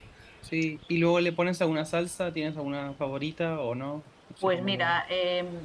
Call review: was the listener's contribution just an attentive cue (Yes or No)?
No